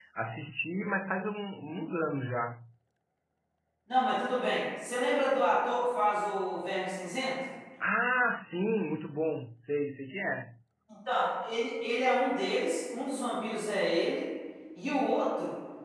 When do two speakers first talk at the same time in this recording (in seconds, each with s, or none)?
none